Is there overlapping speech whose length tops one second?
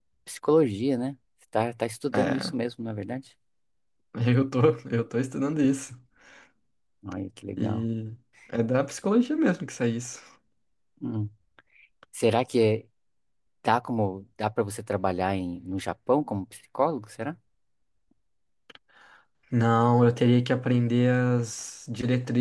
No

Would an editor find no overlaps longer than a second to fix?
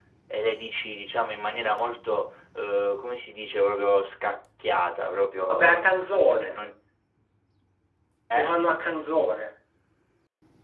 Yes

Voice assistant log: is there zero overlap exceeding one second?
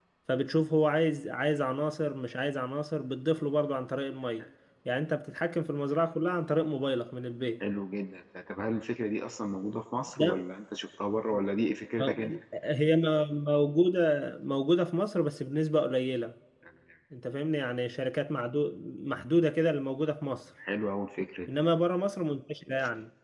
Yes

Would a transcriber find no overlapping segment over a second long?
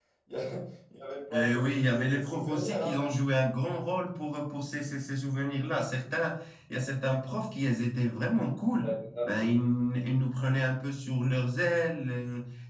No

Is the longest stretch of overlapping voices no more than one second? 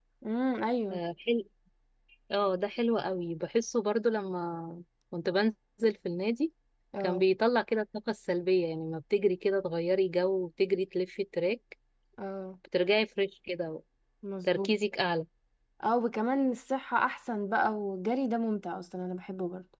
Yes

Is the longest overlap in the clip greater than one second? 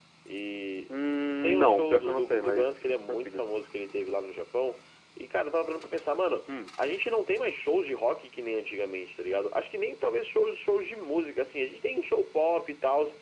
Yes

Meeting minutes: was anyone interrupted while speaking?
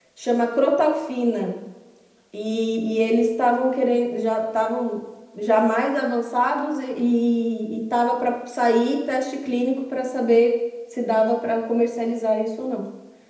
No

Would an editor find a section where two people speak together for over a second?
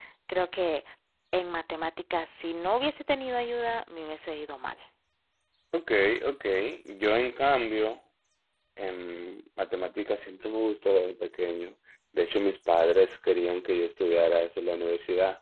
No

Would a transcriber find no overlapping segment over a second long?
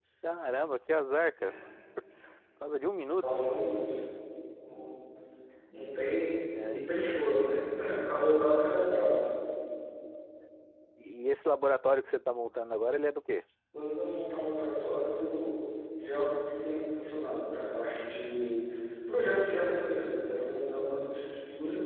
Yes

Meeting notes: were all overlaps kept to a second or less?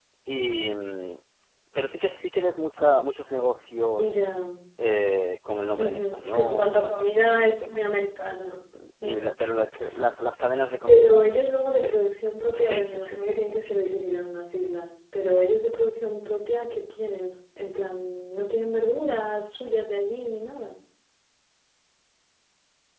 No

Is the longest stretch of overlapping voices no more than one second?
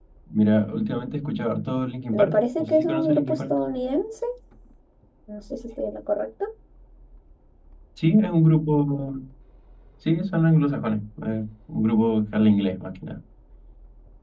No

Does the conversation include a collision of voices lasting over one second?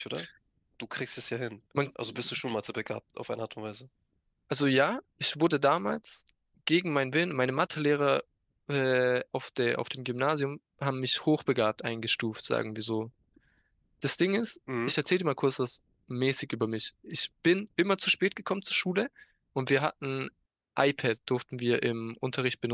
No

